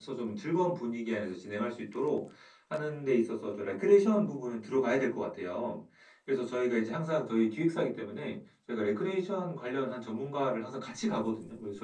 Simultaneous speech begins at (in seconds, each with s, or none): none